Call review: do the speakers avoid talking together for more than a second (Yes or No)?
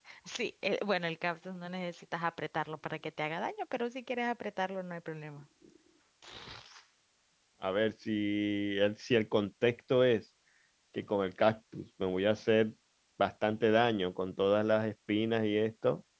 Yes